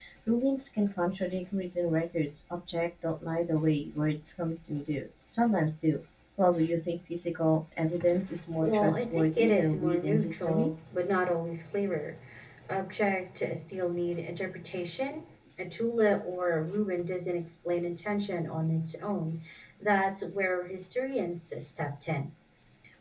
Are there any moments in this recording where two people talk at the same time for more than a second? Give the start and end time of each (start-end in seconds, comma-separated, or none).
8.6-10.7